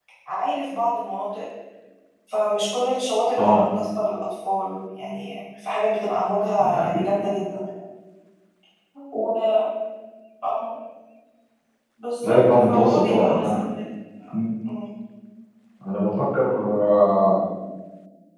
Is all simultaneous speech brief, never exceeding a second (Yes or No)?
No